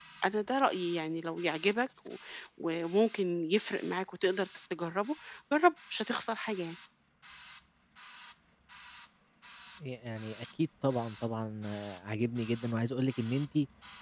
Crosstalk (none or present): none